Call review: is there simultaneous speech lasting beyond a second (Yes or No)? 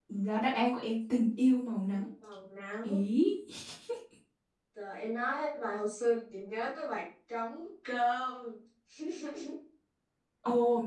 No